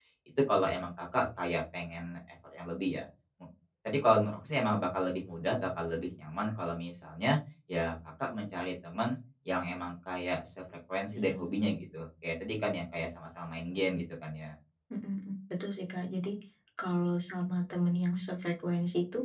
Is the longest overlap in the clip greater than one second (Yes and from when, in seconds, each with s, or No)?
No